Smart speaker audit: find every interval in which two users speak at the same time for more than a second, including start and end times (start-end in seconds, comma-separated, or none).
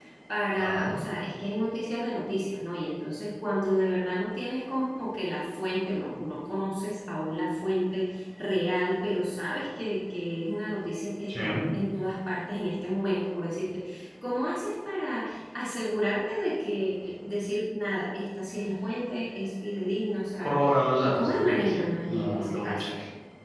21.0-22.9